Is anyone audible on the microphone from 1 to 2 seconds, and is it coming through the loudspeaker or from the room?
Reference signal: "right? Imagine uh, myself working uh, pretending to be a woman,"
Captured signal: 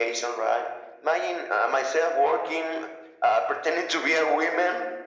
echo only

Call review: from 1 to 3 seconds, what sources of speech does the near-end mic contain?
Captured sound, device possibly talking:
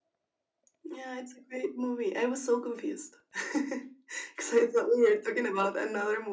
echo only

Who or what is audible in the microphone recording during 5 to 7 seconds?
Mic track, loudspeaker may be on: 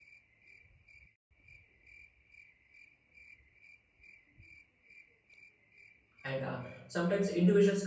user only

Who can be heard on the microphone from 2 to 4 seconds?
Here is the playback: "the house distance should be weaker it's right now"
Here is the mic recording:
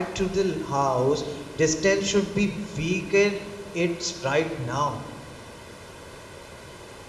echo only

